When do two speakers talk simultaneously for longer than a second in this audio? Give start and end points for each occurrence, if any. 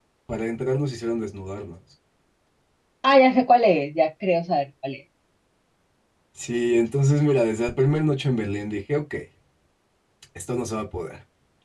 none

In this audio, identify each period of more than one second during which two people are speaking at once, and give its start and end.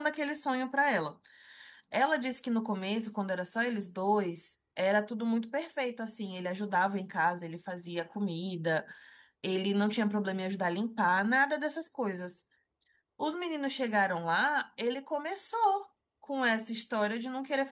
none

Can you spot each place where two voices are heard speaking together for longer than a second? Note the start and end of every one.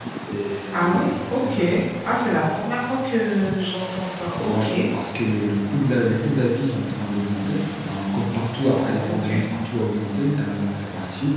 none

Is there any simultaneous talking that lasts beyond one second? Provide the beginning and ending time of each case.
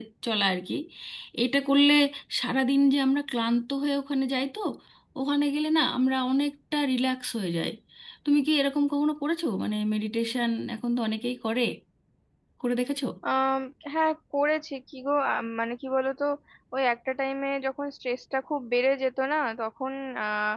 none

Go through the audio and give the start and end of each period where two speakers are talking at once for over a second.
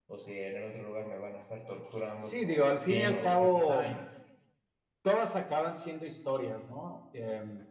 2.2-3.9

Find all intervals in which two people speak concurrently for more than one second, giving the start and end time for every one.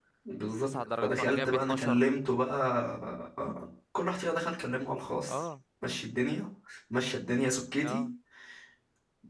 0.6-2.0

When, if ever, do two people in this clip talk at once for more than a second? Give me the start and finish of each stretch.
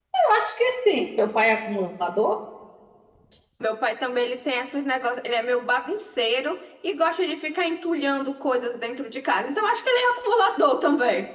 none

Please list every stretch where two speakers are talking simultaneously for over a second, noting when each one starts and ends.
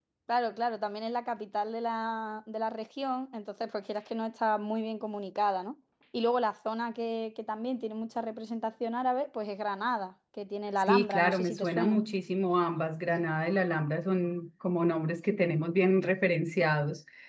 10.8-12.0

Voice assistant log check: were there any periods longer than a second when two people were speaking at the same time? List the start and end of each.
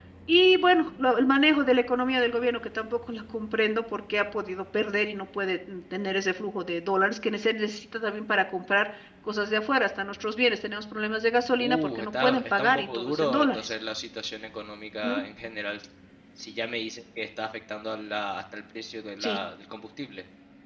11.6-13.7

